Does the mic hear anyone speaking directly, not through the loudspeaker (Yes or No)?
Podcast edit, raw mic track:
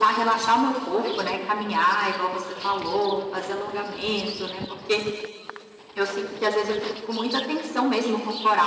No